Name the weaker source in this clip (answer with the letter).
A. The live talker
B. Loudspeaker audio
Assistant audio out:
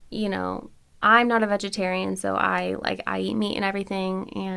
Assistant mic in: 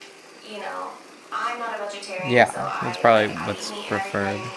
B